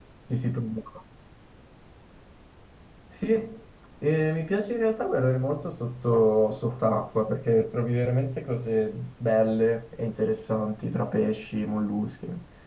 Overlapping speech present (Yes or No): No